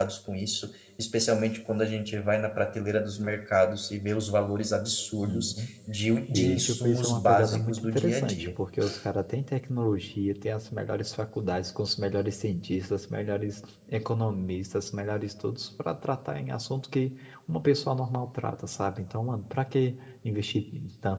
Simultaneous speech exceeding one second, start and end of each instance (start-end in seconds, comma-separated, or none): 6.3-8.5